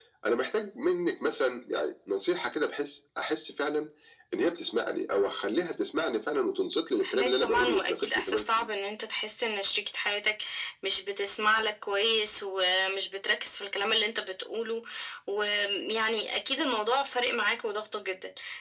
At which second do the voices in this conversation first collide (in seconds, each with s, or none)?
7.0 s